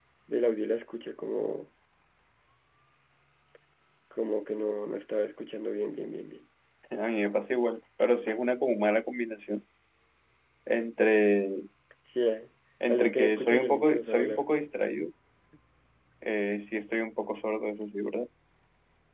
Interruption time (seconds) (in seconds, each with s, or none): 12.9 s